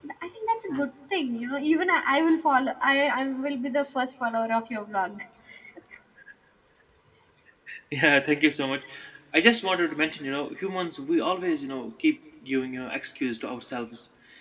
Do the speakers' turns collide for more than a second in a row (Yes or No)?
No